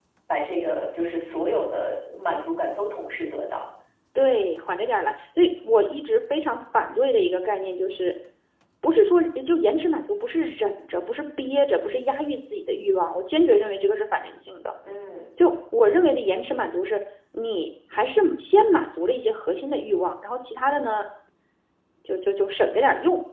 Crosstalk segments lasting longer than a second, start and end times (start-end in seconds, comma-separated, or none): none